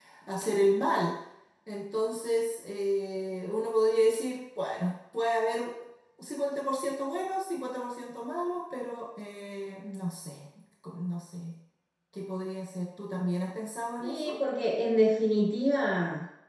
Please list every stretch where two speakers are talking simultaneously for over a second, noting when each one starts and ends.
none

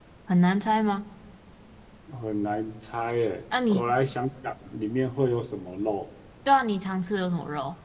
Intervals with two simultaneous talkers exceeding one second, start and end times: none

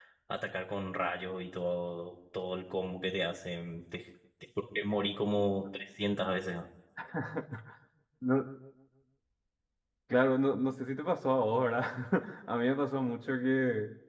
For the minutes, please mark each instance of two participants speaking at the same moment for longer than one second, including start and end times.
none

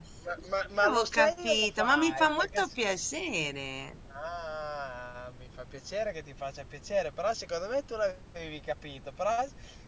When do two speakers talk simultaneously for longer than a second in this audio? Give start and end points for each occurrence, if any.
0.9-2.7

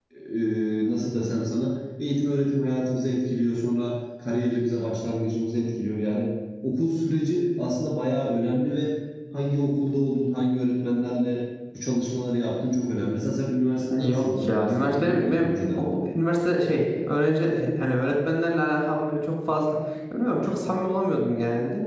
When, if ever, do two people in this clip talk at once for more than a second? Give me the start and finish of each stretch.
14.0-15.8

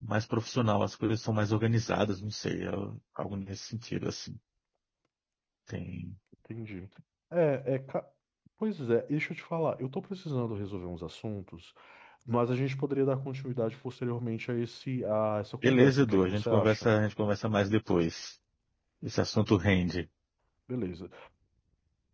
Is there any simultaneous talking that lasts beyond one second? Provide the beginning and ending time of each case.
15.6-16.9

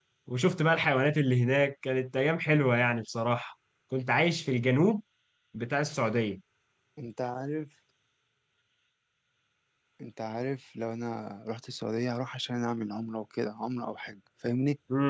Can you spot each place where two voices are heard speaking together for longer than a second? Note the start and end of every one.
none

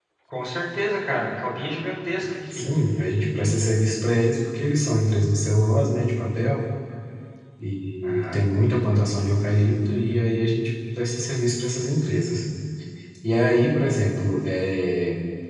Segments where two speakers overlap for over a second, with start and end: none

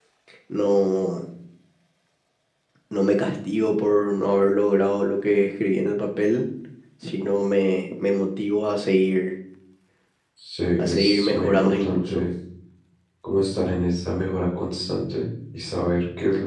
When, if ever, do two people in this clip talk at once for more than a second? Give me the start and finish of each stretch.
10.8-12.3

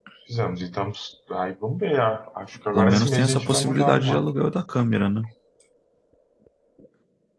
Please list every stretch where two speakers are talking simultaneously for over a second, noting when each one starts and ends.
2.7-4.2

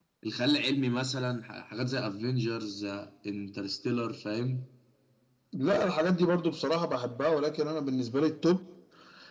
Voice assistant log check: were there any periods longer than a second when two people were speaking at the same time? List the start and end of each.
none

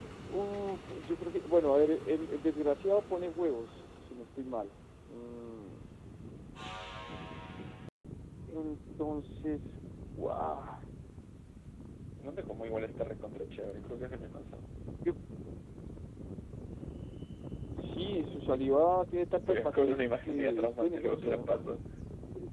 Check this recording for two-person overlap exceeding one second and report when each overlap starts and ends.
19.5-21.5

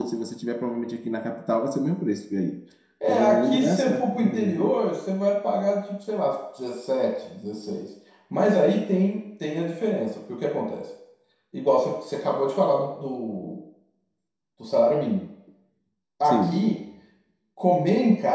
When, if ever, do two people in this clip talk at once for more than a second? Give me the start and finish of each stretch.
3.1-4.8

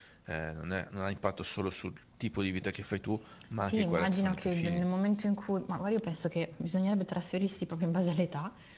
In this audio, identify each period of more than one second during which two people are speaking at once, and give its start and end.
3.6-4.8

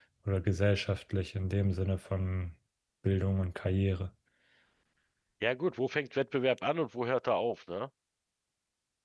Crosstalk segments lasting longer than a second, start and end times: none

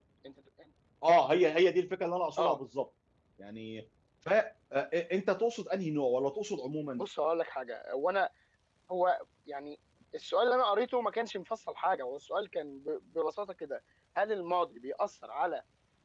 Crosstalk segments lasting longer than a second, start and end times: none

